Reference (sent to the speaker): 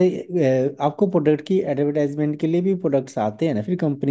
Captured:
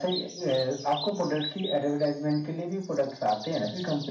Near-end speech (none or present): none